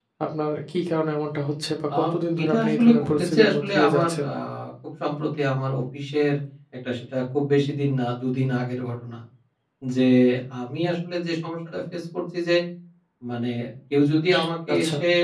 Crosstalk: present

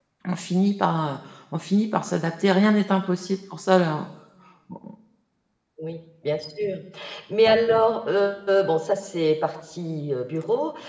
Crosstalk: none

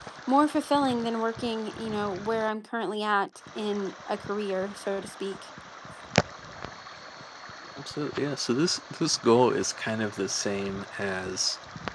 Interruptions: none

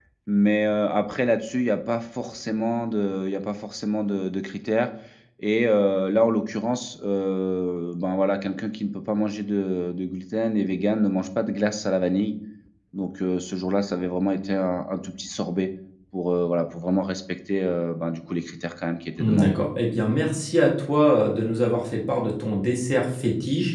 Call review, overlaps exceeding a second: none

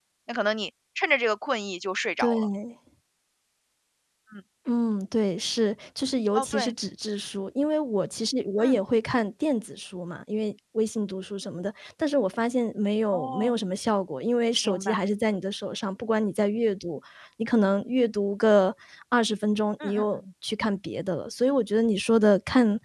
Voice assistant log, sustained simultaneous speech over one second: none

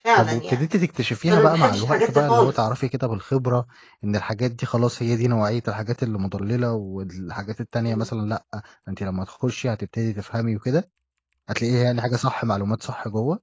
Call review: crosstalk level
present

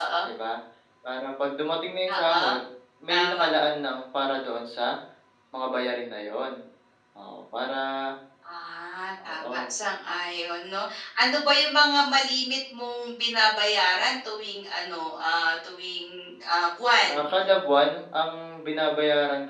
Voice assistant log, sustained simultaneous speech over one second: none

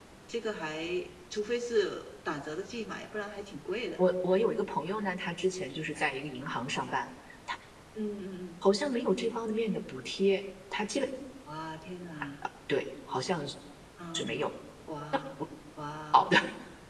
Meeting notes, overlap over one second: none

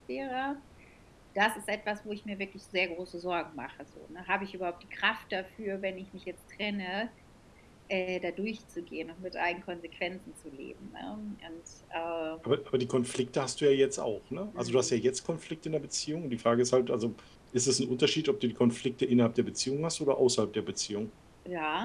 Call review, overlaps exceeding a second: none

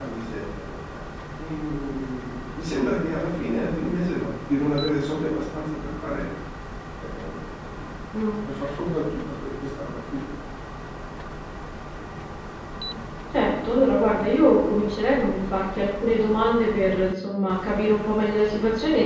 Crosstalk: none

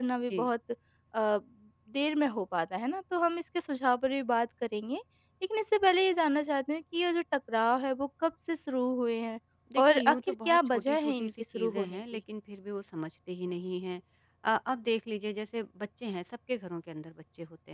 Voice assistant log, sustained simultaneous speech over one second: present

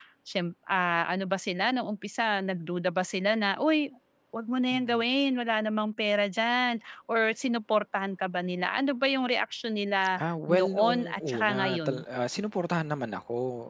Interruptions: present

